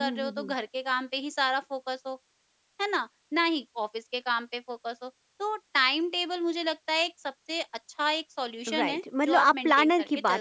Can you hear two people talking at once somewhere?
Yes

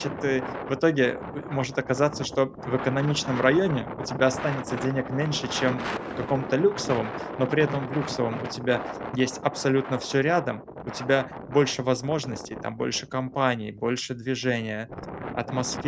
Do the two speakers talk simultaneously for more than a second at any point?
No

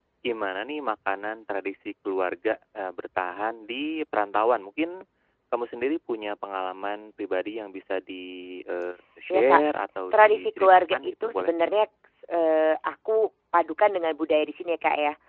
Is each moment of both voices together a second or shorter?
No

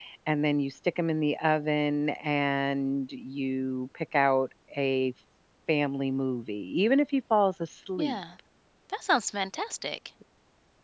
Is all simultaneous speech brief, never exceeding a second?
Yes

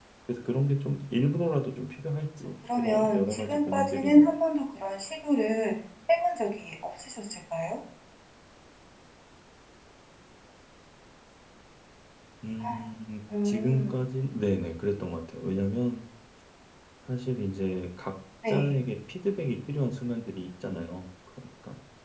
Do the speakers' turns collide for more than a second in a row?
Yes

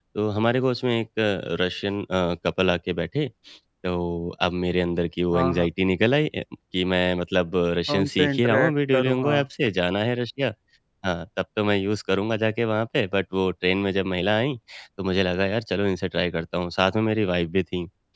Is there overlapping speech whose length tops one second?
Yes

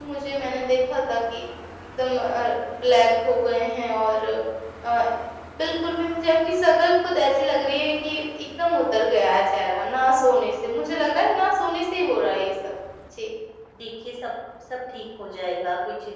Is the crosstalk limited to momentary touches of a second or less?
Yes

